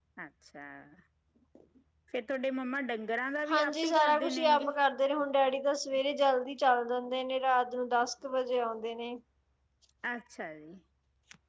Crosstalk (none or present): present